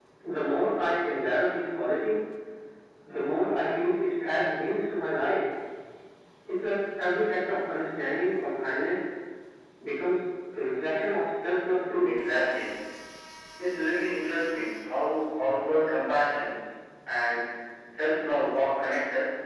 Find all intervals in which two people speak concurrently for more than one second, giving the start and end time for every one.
none

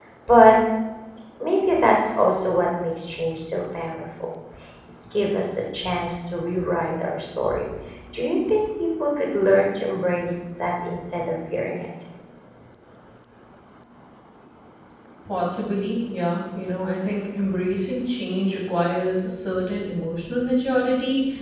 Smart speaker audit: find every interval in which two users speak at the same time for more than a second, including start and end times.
none

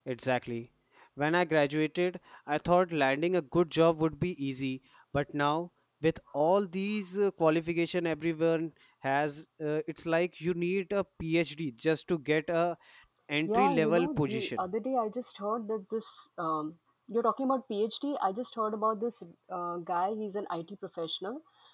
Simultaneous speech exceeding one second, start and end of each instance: 13.5-14.7

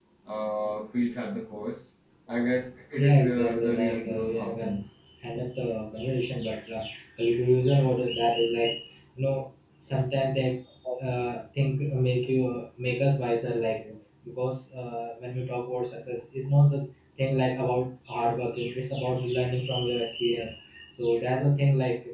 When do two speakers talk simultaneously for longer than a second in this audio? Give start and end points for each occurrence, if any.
3.0-4.8

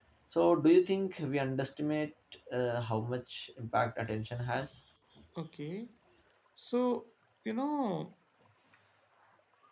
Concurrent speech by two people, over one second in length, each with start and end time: none

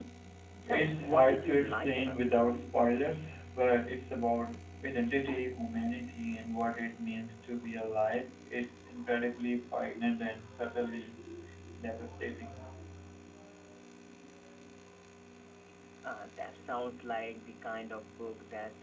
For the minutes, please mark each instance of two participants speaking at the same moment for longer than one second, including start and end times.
0.7-2.4

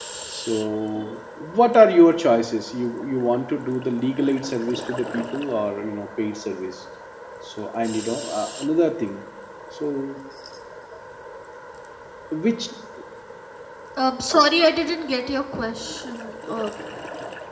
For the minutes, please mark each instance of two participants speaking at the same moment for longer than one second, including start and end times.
none

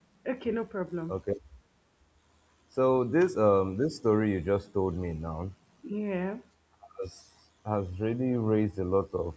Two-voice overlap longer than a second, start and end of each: none

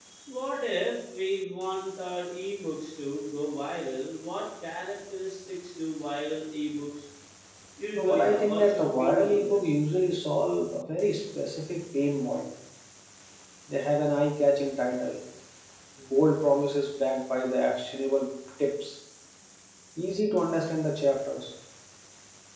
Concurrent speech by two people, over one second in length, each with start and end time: 8.0-9.6

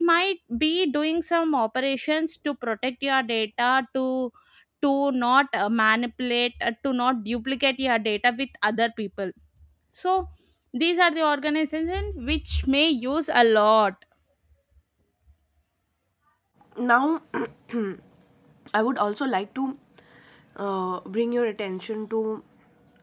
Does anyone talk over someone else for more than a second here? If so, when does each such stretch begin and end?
none

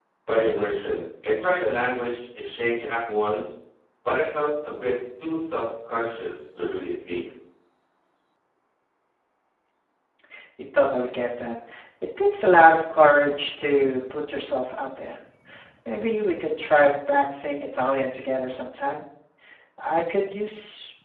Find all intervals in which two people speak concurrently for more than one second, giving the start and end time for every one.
none

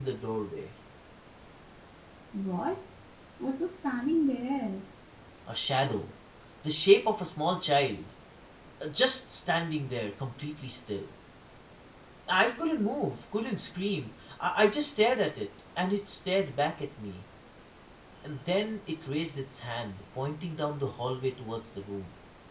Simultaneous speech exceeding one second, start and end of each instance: none

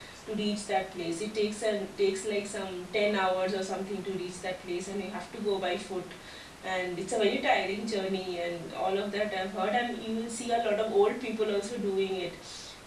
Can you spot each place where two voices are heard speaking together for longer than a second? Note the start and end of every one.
none

